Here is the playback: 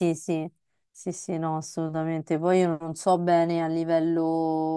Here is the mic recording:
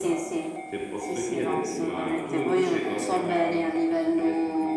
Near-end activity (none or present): present